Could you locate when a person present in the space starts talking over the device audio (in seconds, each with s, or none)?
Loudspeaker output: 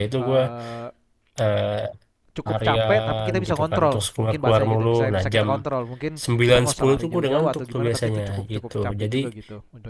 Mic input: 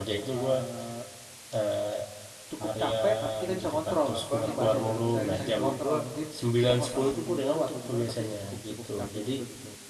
4.1 s